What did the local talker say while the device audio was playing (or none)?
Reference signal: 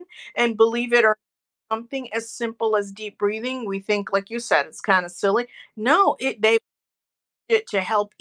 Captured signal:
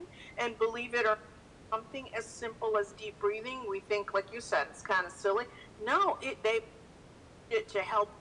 none